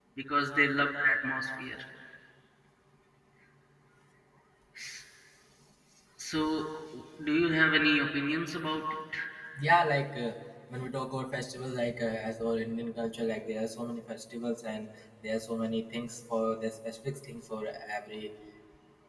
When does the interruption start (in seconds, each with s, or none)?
none